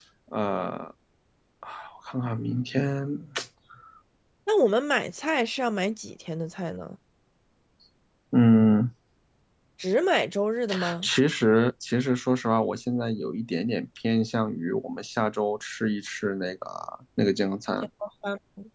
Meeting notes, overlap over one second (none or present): none